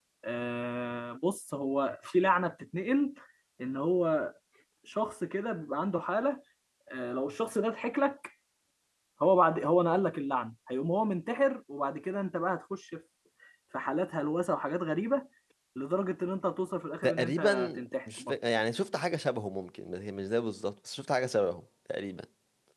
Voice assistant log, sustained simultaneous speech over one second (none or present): present